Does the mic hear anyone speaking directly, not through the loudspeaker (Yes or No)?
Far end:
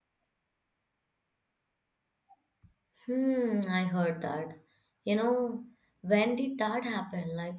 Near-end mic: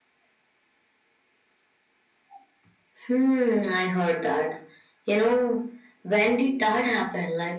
No